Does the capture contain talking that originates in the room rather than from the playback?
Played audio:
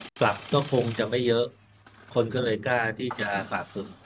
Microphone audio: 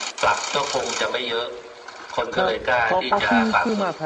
Yes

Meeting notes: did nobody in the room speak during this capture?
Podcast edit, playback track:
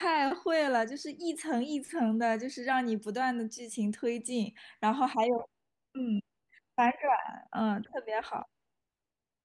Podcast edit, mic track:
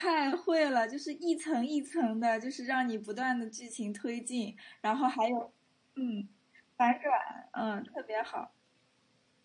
Yes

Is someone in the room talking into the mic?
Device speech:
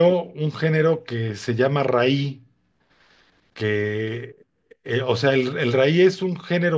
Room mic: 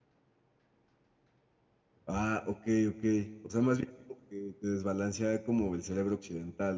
Yes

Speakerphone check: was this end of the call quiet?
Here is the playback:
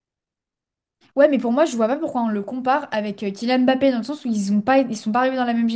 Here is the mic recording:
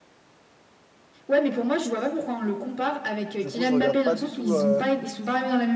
No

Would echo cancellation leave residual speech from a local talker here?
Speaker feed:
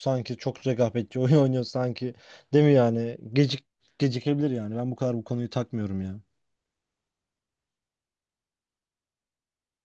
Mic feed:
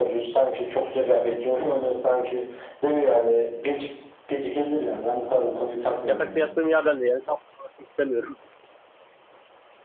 Yes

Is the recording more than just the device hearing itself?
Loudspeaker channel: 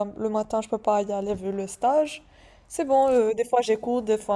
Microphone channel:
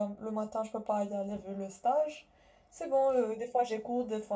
No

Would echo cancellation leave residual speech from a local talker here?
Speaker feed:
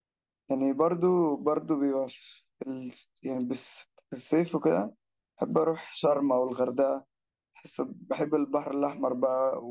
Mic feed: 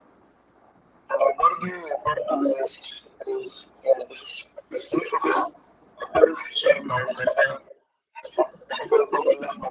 No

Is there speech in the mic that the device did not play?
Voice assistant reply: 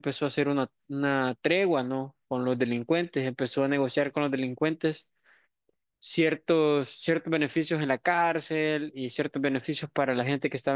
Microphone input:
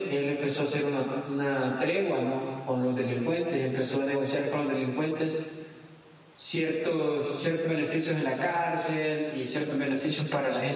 No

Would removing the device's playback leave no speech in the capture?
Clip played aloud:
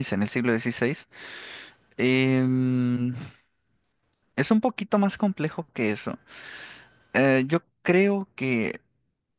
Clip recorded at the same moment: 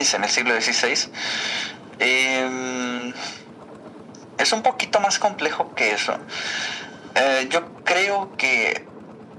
Yes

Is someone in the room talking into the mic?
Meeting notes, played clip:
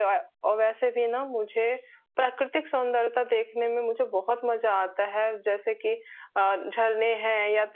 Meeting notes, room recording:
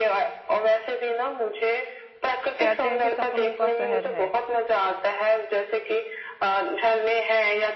Yes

